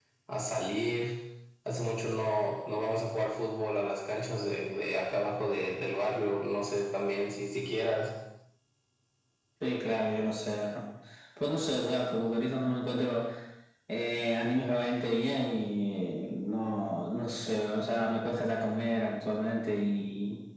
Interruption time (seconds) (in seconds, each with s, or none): none